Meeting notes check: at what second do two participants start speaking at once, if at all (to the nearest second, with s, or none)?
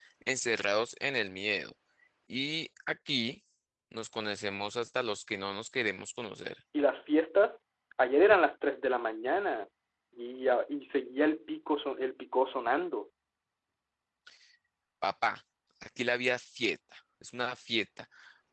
none